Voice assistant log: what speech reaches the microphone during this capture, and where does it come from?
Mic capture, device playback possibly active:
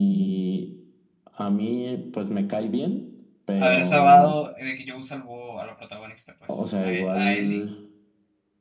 both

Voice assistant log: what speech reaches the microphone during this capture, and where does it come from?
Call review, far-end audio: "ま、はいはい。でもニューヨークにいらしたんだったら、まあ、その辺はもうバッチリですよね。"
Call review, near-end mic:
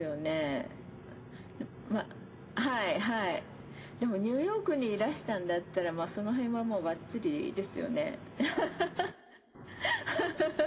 echo only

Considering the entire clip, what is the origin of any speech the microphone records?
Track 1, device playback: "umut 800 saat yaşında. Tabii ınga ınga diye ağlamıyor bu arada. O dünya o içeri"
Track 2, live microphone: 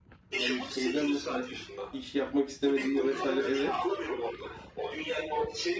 both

